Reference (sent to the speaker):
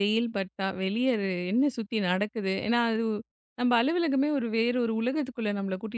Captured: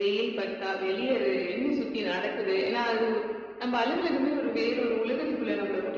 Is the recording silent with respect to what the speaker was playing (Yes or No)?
No